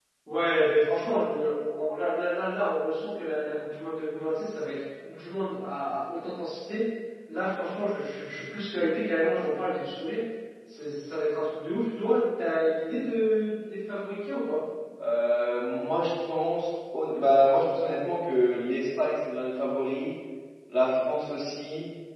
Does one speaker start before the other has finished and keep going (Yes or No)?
No